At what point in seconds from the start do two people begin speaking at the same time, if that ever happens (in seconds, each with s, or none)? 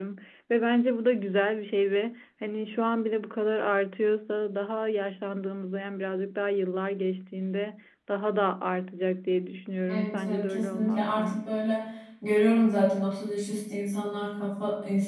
9.9 s